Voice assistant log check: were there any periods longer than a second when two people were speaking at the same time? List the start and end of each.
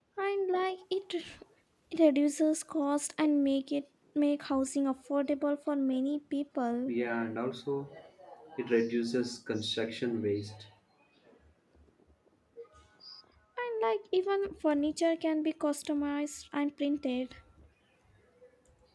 none

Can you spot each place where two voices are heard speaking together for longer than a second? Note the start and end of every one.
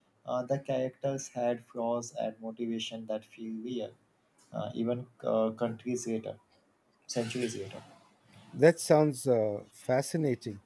none

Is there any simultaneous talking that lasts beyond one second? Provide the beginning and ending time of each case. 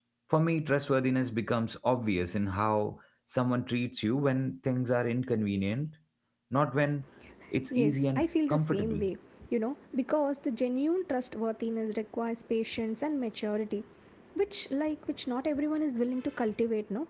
7.7-9.0

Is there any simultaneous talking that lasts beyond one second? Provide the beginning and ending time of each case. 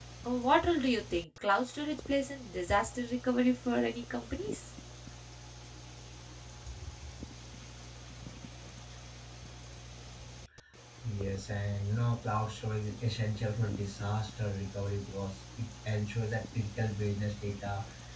none

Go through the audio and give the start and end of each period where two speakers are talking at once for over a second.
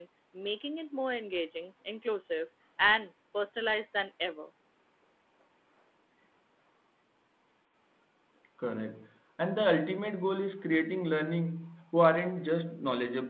none

